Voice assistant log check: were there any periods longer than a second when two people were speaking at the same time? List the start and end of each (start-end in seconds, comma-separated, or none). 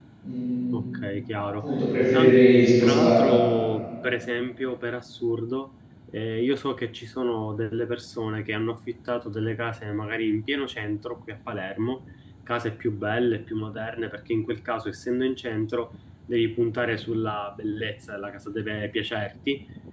2.1-3.3